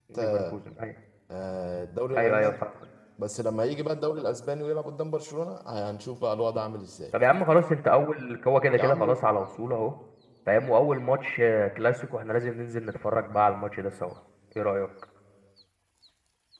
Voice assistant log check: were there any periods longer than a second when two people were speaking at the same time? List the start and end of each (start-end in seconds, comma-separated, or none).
none